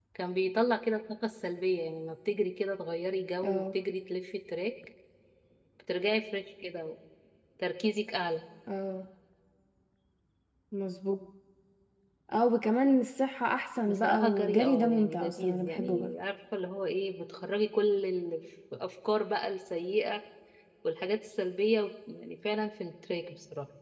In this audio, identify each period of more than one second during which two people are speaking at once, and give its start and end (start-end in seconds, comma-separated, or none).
13.9-16.1